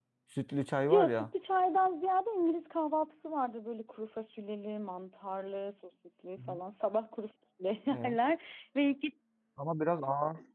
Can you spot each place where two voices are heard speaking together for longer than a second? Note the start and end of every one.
none

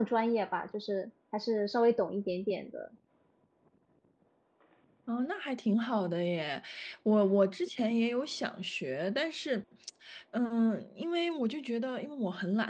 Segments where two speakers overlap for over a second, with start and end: none

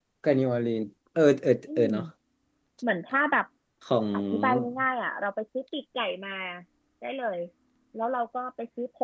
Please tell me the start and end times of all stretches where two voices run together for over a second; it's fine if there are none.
none

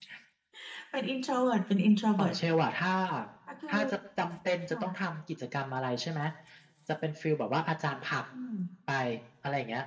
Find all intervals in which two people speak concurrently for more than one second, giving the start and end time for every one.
none

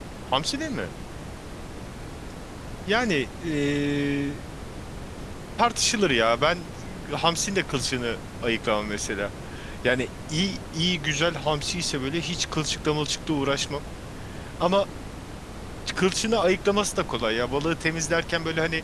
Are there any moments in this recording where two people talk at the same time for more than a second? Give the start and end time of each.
none

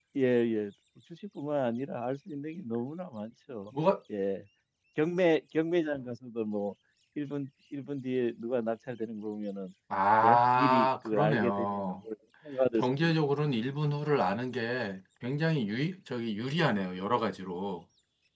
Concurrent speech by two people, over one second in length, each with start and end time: 10.2-12.0

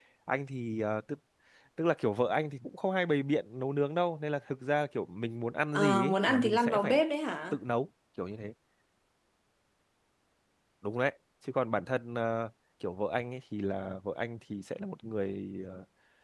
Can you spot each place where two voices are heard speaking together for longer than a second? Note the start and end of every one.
5.7-7.0

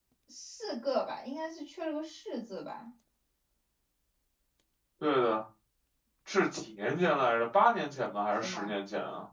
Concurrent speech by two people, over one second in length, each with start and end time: none

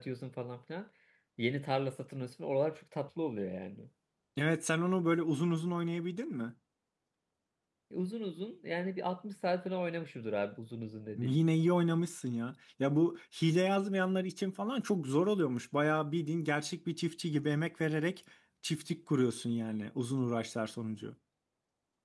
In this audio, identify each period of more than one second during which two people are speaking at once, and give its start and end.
none

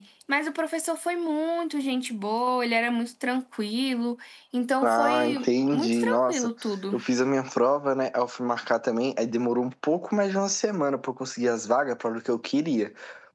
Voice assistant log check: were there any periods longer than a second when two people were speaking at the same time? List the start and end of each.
4.8-6.5

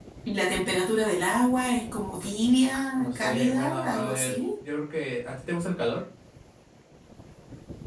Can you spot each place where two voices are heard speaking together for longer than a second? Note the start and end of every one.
3.0-4.3

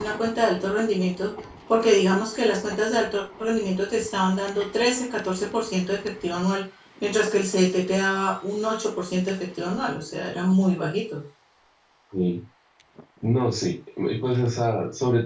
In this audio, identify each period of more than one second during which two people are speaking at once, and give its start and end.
none

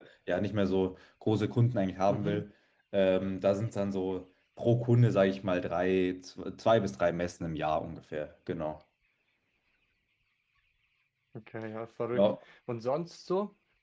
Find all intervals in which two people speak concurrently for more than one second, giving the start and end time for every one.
none

